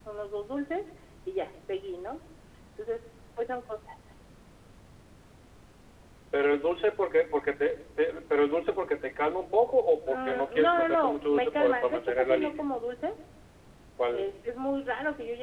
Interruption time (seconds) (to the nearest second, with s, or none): 10 s